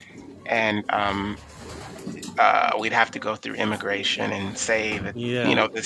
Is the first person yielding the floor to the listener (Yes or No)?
No